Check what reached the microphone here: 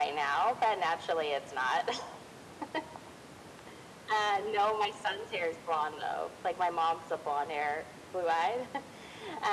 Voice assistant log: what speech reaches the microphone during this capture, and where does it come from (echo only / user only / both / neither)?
echo only